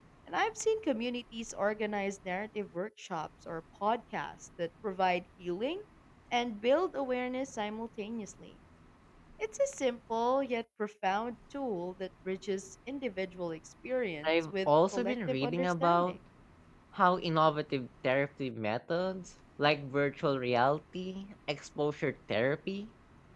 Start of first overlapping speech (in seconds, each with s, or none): 14.2 s